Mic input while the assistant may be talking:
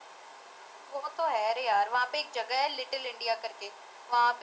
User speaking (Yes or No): No